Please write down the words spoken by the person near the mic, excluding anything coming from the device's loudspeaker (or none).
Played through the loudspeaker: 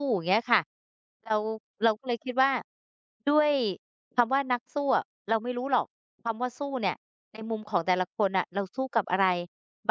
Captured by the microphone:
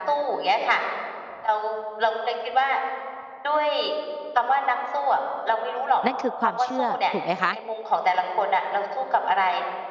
นั่นคือความเชื่อถูกไหมคะ